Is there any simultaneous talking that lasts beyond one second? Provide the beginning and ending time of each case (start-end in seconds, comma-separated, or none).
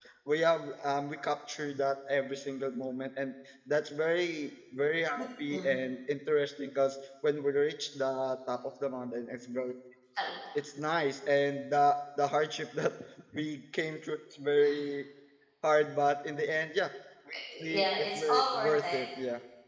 17.6-19.0